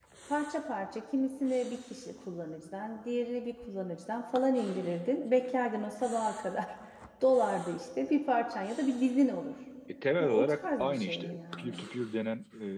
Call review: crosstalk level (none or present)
present